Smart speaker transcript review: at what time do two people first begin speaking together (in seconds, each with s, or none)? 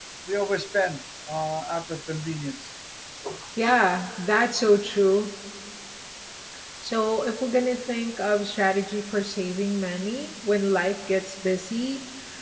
none